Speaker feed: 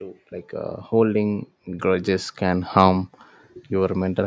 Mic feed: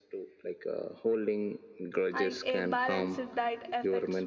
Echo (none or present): present